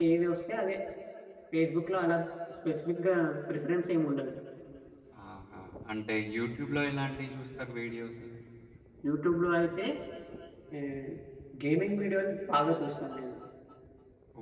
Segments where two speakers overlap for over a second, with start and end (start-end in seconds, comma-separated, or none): none